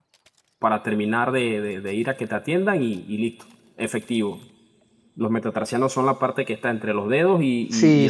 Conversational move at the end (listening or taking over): taking over